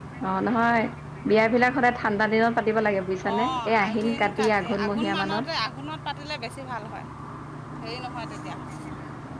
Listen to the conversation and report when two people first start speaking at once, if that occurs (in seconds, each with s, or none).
3.2 s